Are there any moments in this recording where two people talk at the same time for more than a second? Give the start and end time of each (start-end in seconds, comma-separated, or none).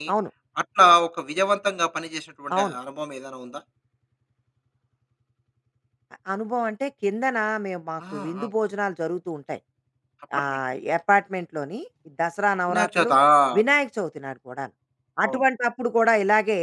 none